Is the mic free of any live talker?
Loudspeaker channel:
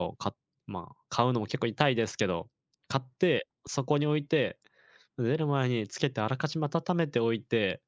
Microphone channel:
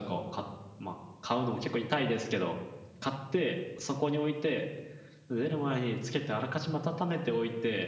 Yes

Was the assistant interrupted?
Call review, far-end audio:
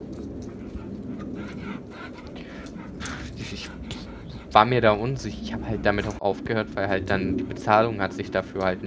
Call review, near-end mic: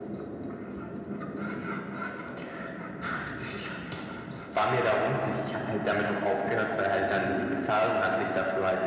No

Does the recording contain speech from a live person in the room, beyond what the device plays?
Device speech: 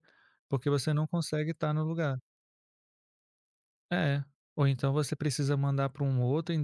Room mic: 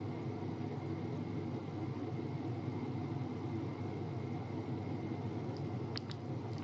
No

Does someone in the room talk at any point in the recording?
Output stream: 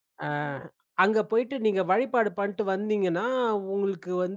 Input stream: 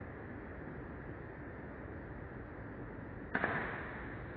No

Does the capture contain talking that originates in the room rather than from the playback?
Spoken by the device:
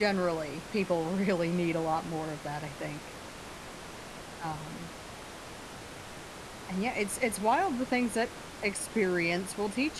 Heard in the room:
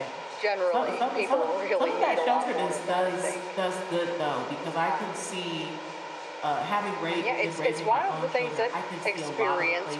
Yes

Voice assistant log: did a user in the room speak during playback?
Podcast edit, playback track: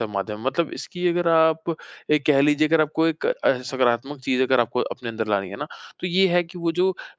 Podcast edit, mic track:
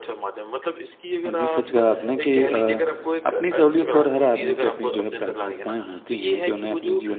Yes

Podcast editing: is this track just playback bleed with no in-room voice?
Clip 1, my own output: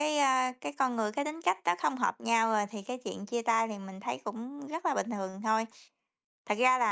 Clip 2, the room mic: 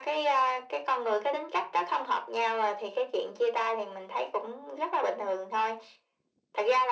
Yes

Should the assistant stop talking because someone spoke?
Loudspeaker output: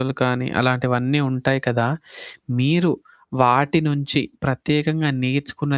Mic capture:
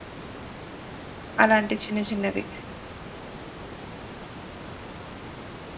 Yes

